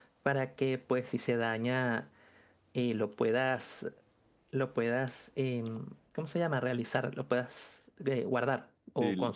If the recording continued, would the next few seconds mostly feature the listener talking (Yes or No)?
Yes